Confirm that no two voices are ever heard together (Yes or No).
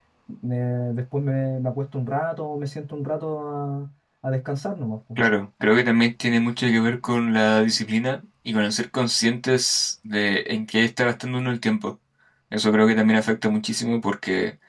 Yes